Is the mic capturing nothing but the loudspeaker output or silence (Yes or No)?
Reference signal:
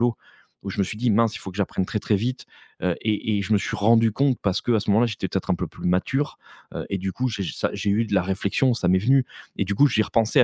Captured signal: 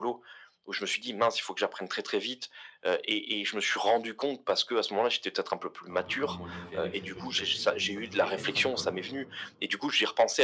No